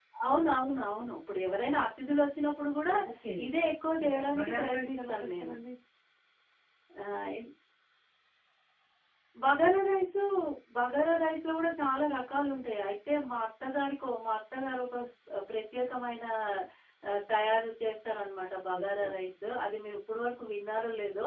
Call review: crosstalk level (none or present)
present